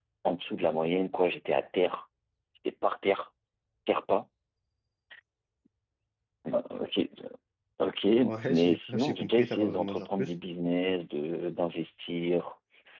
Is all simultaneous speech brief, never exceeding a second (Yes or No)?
No